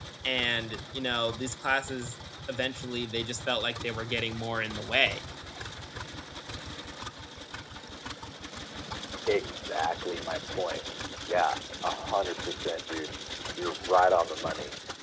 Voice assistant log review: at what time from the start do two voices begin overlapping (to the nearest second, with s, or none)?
none